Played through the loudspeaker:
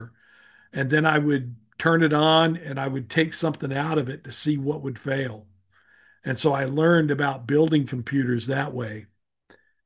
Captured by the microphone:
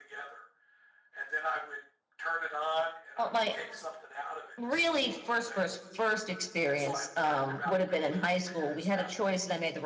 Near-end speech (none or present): present